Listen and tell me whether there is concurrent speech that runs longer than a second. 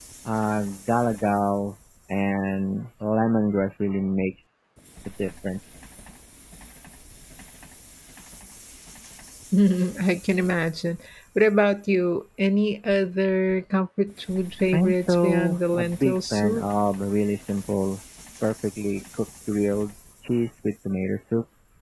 Yes, from 14.7 s

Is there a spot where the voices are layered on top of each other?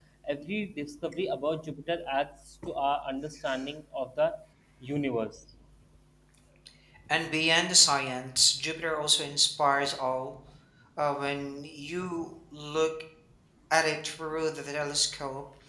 No

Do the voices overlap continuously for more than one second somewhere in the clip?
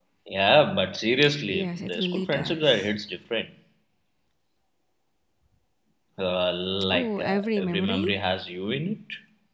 Yes, from 1.5 s

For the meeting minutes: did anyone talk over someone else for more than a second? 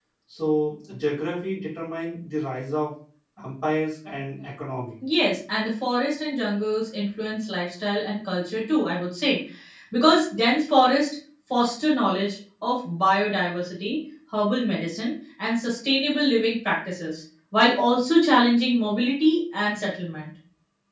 No

